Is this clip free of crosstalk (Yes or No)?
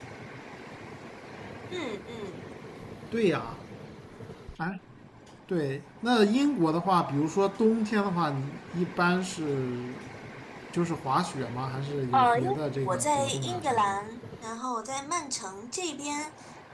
No